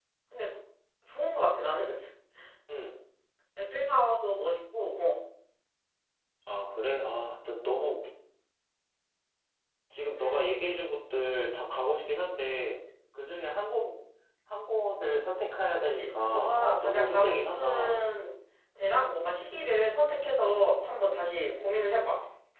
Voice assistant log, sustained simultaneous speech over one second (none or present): present